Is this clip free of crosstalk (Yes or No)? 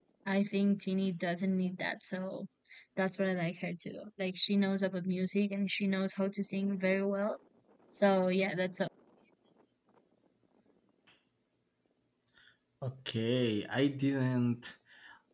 Yes